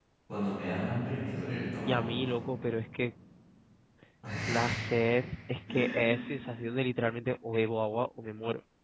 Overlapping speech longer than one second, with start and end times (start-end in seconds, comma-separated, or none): none